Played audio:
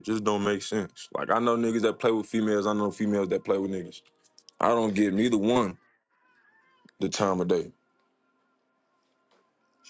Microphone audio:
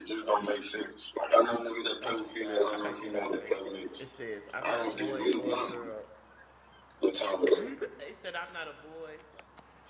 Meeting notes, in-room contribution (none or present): present